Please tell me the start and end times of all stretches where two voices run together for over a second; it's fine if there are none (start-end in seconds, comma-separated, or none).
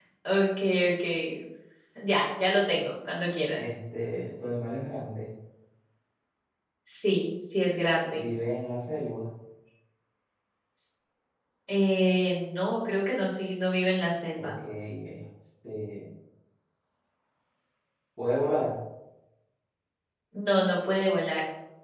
none